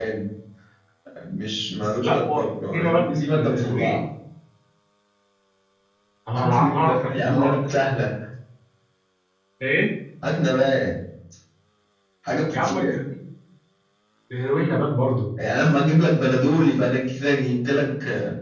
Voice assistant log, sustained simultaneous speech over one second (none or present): present